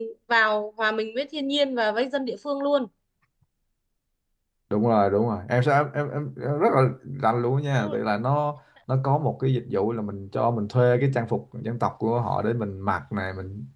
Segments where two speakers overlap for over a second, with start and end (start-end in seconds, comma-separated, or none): none